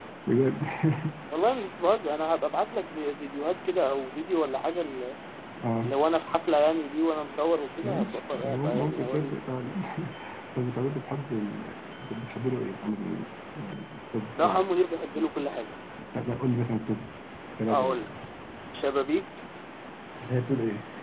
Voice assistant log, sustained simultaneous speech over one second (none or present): present